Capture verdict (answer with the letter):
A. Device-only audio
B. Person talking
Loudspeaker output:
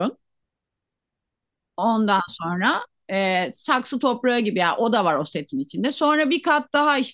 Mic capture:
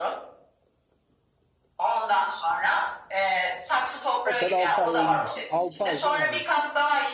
B